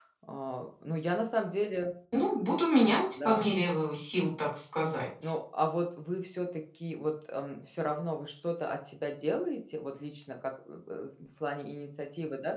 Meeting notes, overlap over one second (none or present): none